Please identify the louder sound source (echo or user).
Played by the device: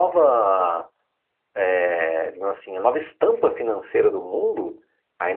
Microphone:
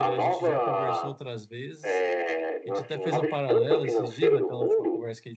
echo